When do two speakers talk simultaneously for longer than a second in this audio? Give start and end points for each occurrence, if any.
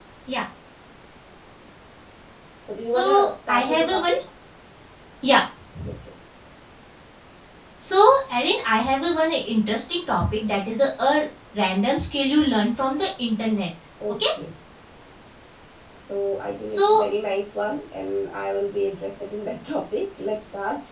2.8-4.2

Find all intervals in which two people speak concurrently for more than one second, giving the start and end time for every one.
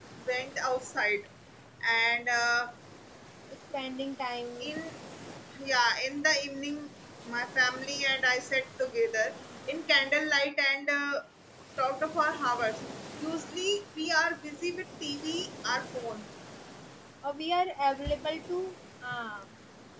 none

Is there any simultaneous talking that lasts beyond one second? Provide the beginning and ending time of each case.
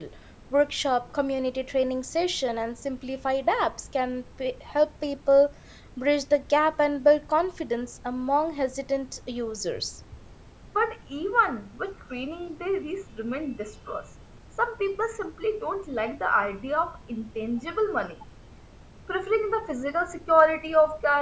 none

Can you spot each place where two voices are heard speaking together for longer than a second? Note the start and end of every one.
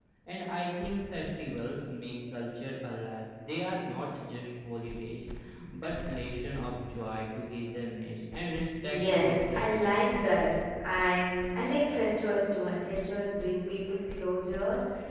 8.8-10.1

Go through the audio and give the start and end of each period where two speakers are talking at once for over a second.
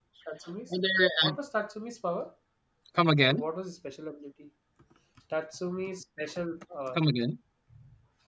none

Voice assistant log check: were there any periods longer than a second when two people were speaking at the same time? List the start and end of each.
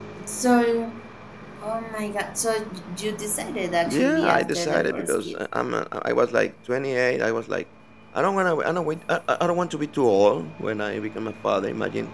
3.9-5.4

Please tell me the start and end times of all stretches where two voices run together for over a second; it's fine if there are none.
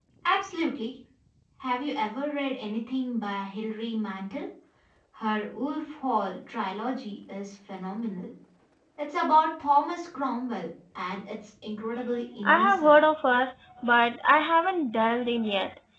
none

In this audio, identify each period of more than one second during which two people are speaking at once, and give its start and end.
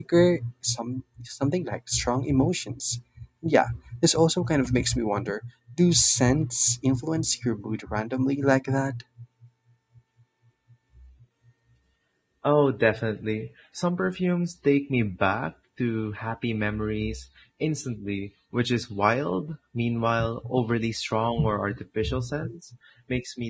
none

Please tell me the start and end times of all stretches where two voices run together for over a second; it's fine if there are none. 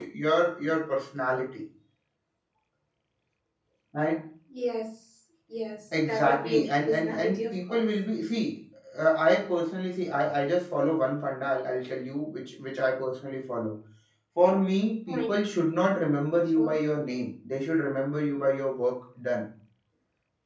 6.1-7.8

